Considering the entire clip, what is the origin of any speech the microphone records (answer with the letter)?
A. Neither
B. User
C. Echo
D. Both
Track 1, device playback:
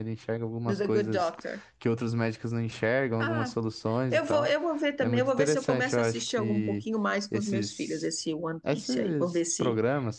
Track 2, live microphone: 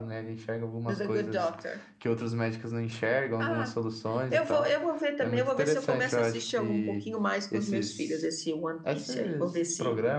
C